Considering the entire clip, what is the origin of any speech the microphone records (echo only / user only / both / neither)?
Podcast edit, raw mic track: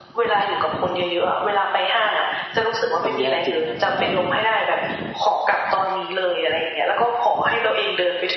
both